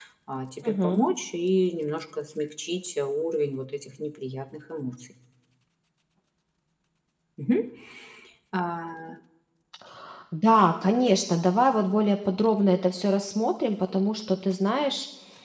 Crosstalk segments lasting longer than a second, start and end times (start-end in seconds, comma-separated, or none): none